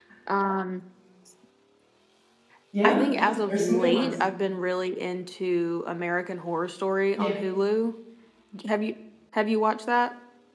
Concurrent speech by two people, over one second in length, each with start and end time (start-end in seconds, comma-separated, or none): 2.8-4.2